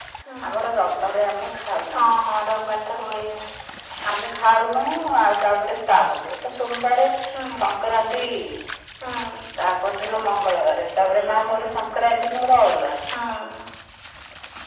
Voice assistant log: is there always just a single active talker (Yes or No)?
Yes